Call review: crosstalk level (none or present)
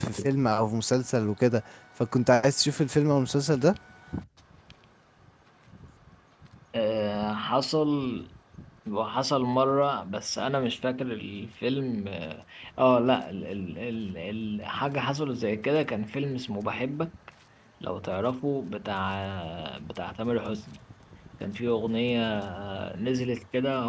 none